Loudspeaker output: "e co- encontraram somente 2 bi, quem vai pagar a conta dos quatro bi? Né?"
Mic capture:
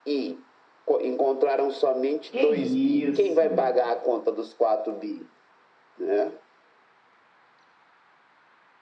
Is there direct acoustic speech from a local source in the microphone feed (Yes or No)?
Yes